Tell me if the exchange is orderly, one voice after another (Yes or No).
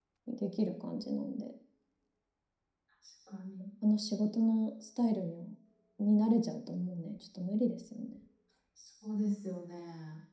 Yes